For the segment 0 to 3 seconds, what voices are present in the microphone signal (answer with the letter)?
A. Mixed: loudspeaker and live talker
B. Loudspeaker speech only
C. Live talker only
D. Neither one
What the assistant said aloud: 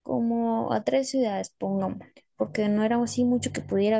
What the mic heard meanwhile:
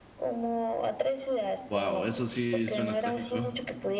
A